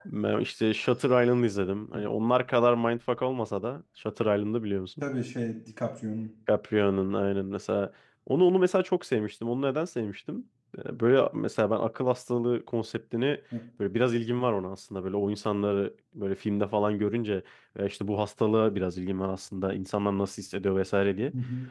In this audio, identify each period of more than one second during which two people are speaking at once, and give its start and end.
none

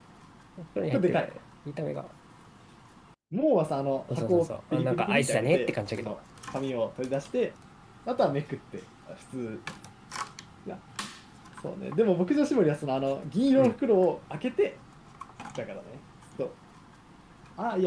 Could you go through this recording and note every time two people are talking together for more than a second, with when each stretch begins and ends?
4.2-6.1

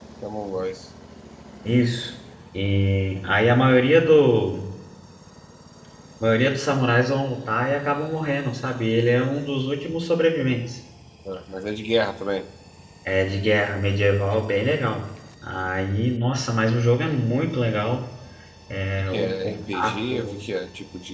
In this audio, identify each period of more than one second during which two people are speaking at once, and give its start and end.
19.0-20.4

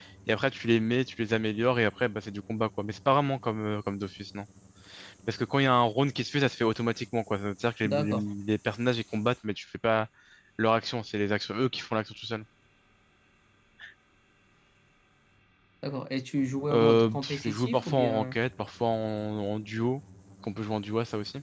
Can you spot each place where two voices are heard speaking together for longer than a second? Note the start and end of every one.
16.7-18.4

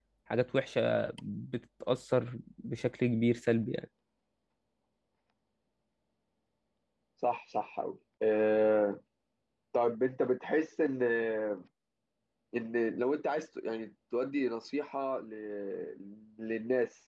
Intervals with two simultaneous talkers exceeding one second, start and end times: none

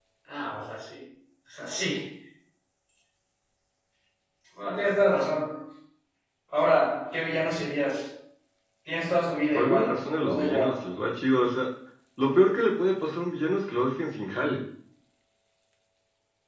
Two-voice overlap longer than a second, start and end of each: 9.5-10.8

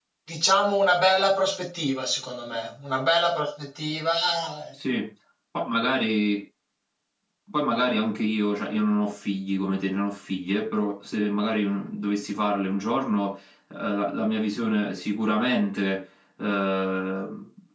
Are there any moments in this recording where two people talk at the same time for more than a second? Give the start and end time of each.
none

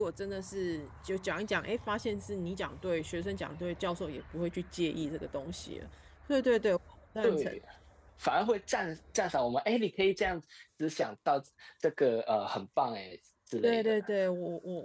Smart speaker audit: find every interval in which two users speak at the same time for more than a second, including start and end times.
none

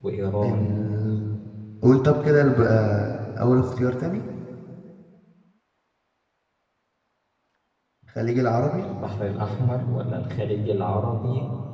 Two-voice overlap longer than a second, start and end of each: none

